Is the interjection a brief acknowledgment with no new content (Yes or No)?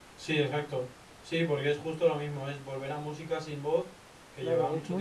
No